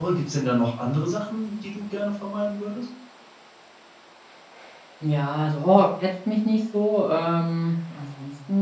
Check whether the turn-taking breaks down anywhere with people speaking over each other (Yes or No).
No